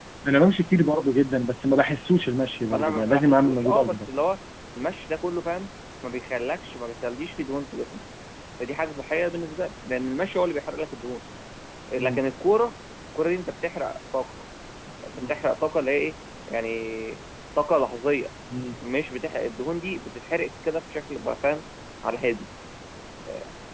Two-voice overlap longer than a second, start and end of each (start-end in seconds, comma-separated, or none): 2.7-4.0